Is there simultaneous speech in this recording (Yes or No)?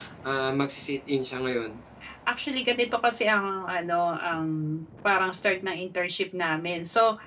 No